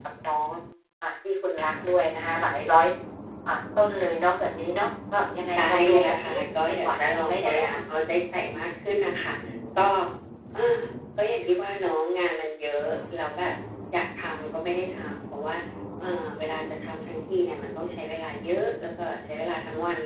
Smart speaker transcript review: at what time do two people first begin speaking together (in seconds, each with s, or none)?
5.5 s